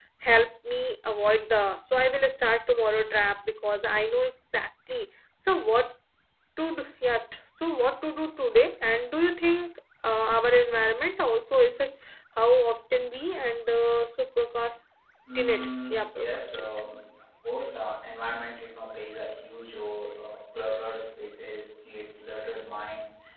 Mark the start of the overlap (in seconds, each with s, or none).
15.3 s